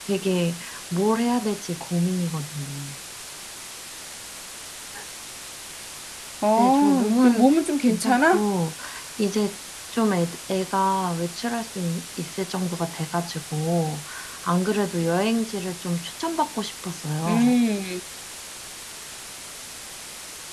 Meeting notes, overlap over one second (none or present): present